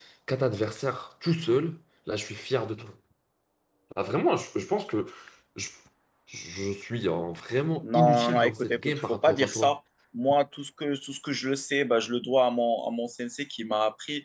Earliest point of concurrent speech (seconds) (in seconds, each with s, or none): 7.8 s